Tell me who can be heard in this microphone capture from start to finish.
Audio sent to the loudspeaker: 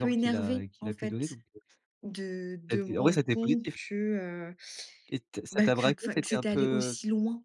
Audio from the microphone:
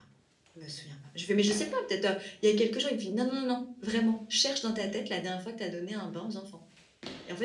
user only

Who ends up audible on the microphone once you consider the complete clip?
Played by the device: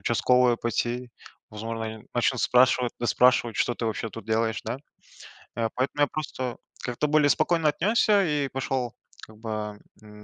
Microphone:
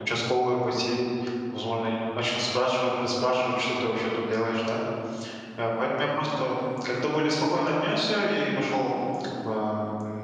echo only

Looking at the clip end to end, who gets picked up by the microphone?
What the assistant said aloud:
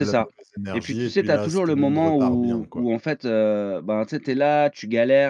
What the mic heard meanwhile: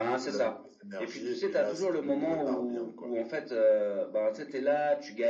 echo only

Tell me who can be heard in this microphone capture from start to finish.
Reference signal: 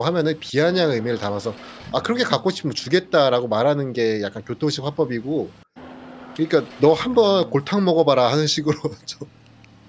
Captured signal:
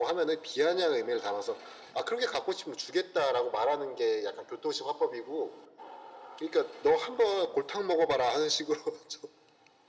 echo only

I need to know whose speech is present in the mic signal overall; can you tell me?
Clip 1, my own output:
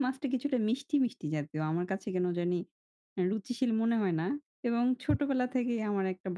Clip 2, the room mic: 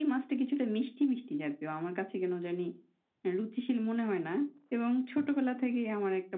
echo only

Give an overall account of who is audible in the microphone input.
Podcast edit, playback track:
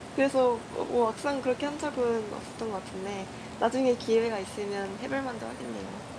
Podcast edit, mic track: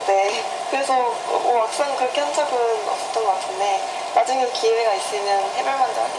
echo only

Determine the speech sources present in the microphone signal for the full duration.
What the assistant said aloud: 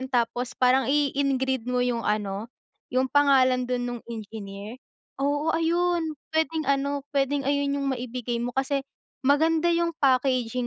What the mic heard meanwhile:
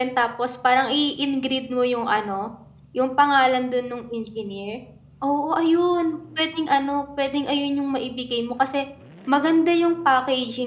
echo only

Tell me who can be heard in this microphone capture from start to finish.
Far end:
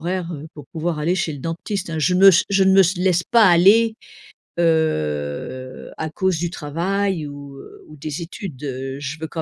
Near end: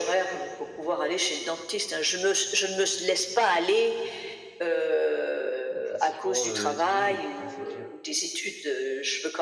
both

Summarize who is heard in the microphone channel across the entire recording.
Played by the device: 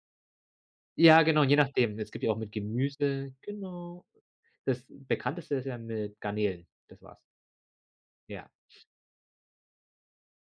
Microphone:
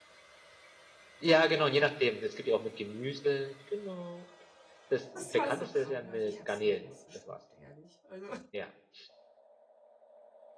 both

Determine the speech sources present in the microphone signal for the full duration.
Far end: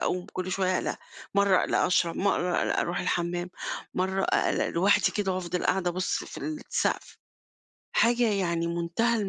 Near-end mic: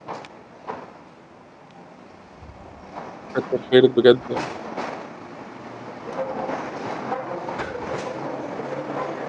user only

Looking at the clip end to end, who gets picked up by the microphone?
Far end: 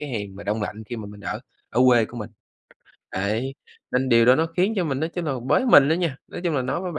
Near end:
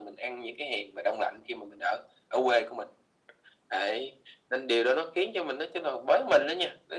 echo only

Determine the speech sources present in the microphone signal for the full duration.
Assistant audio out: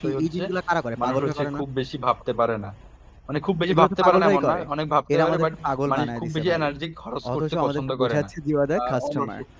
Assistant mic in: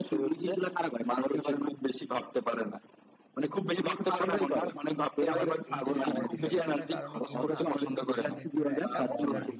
both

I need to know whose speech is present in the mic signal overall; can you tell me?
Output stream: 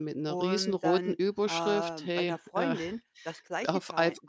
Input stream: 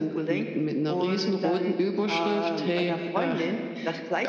echo only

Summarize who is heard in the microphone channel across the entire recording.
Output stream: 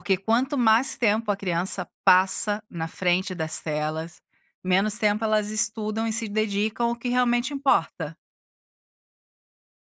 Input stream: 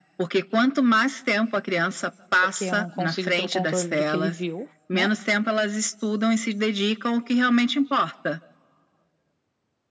both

